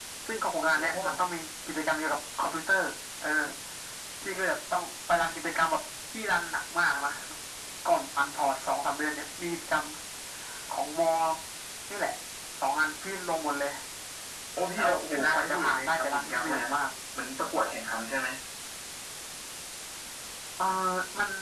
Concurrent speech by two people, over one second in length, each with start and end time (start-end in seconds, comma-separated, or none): 14.8-16.7